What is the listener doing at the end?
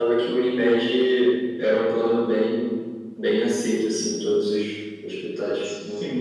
taking over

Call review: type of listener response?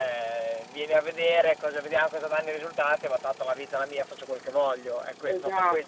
taking over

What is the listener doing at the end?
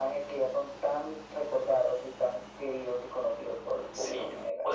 taking over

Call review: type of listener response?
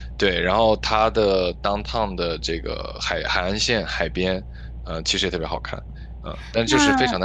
taking over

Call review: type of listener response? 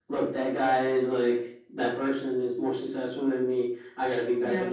listening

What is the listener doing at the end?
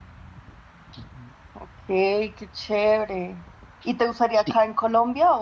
listening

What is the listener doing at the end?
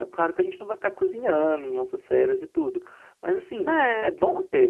listening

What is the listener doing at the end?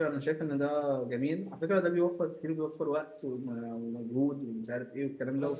taking over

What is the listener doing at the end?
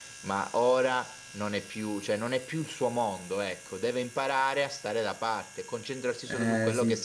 taking over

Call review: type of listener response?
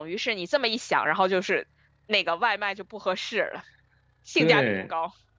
taking over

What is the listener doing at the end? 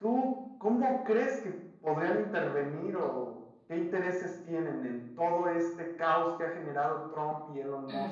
taking over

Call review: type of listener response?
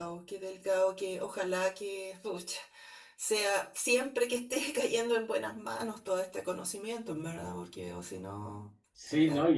taking over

